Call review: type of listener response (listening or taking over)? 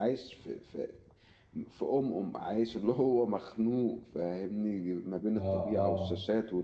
listening